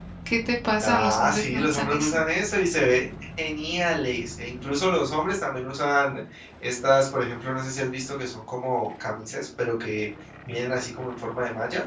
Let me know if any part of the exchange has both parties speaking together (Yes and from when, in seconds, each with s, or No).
Yes, from 0.8 s